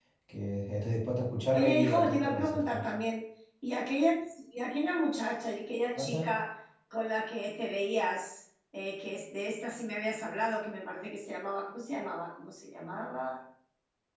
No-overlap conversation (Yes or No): No